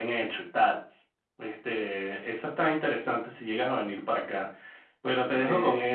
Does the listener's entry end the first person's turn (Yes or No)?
No